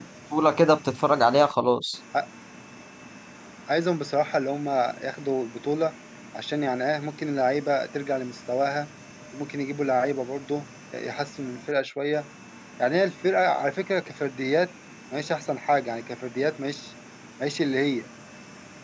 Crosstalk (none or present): none